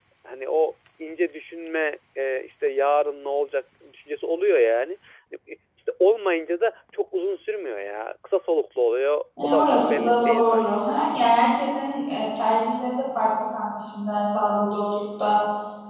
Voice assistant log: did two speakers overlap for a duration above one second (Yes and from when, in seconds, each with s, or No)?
Yes, from 9.4 s